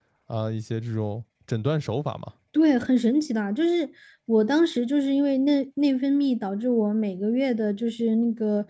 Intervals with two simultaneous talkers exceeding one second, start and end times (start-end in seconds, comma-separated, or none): none